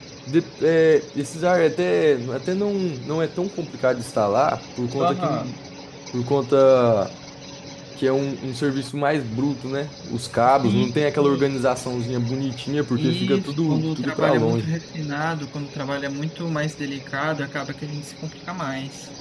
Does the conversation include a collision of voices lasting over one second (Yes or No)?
Yes